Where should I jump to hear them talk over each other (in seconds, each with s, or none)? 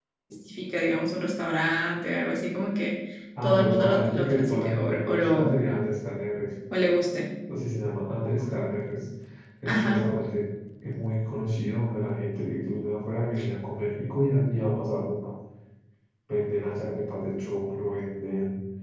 3.4 s